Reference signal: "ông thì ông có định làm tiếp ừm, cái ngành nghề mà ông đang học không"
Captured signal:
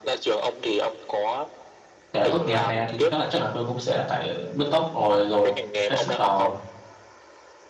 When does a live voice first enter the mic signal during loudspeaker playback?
2.1 s

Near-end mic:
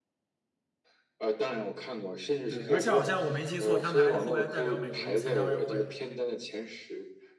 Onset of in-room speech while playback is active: 2.4 s

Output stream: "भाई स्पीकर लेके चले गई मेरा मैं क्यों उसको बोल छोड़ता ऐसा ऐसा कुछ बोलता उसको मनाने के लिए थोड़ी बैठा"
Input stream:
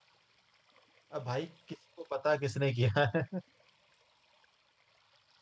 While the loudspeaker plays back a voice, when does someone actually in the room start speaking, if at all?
1.1 s

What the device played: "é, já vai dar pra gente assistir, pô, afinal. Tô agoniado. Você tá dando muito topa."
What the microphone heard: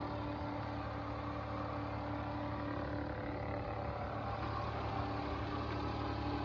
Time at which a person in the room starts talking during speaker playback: none

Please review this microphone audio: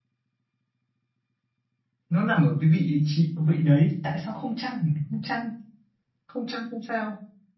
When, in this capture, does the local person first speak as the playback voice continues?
2.1 s

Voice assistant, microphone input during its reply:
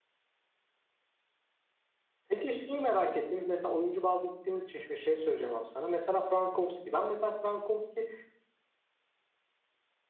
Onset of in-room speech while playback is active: 2.3 s

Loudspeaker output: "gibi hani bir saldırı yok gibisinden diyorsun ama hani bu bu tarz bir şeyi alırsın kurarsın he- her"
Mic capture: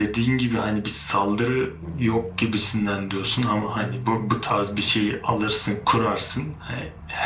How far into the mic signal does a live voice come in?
none

